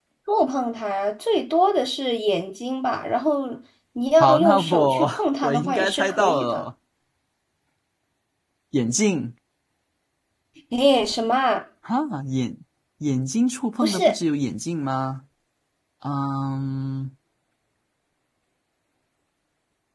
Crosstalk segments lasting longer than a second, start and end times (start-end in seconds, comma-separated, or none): 4.2-6.6